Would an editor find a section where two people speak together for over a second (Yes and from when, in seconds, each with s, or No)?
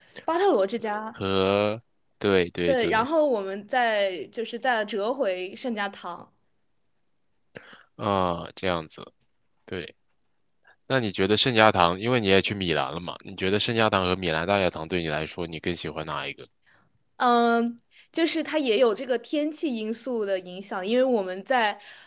No